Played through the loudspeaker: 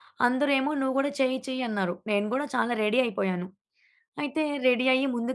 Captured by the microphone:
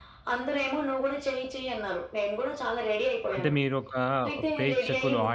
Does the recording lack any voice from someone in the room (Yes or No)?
No